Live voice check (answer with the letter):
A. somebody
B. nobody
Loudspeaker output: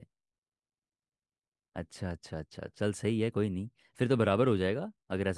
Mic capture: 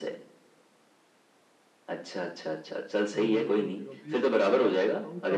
A